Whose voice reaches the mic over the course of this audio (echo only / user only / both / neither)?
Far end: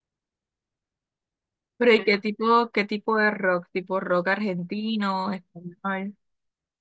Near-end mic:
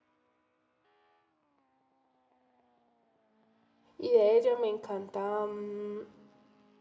user only